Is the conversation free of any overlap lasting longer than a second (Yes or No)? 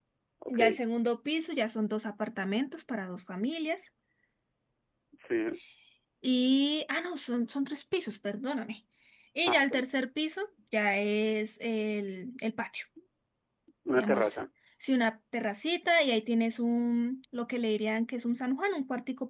Yes